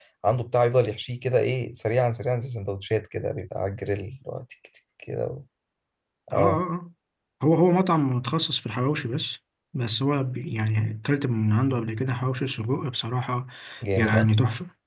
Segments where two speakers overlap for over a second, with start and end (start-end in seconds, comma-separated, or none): none